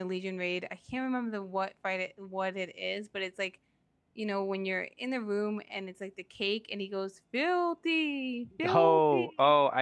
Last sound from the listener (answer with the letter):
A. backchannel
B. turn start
B